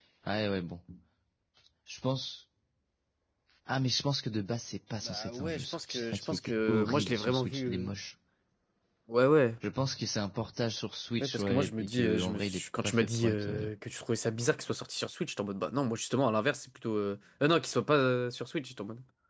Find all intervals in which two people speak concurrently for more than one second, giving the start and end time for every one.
5.0-7.9, 11.2-13.6

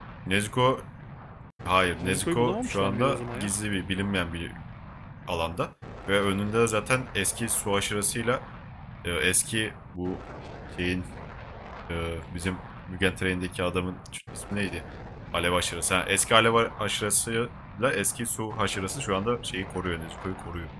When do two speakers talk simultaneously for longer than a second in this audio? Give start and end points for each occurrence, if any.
2.0-3.5

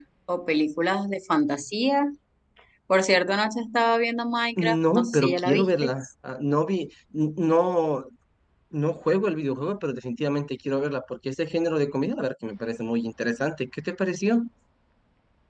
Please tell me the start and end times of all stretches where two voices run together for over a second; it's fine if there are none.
4.6-5.9

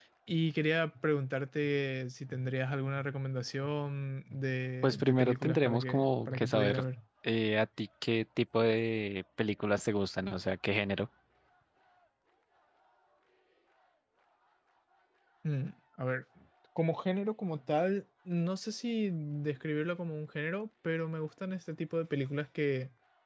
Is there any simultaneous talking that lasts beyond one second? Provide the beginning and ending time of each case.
4.8-6.8

